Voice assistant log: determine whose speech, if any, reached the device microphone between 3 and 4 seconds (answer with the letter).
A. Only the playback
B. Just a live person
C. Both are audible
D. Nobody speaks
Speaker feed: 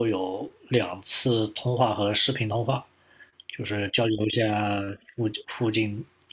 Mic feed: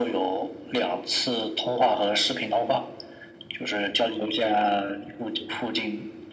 A